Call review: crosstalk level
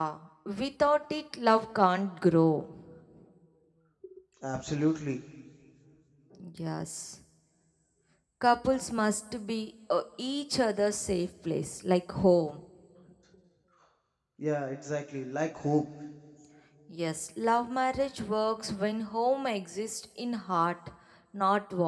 none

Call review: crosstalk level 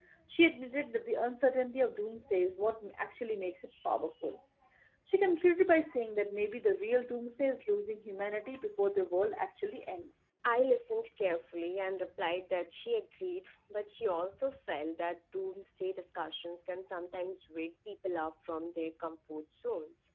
none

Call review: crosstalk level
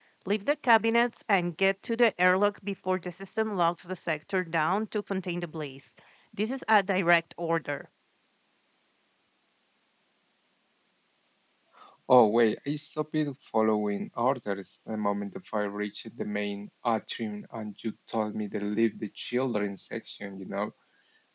none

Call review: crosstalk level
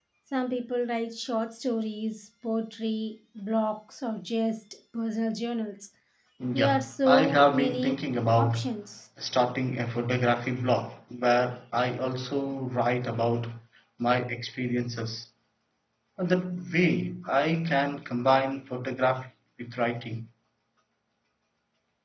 present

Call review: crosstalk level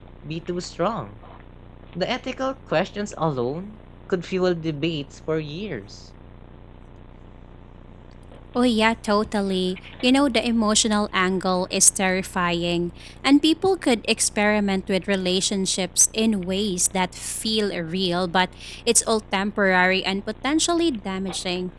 none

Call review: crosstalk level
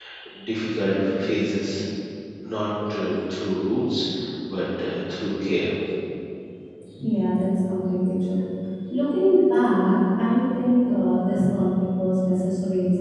none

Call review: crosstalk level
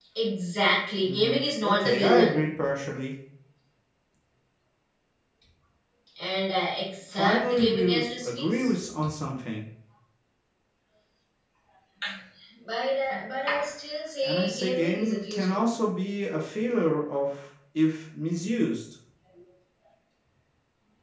present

